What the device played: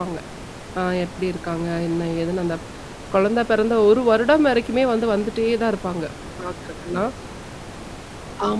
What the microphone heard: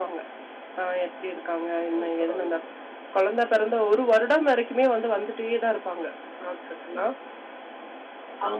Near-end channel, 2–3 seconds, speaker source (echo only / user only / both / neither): both